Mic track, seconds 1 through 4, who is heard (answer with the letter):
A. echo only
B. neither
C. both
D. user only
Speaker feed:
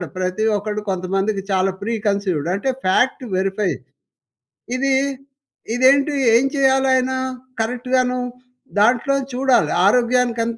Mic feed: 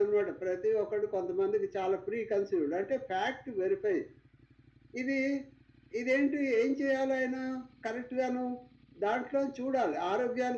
A